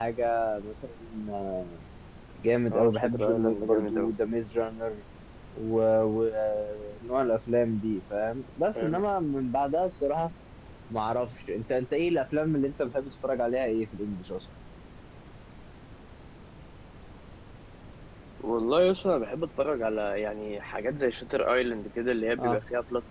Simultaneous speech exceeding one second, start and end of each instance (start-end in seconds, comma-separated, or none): 2.7-4.1